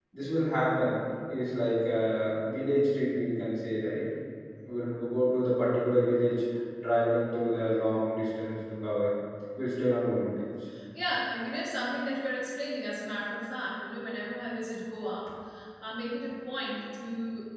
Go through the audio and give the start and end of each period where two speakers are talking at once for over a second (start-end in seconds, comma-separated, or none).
none